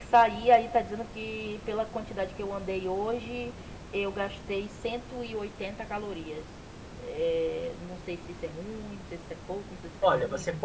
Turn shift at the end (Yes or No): Yes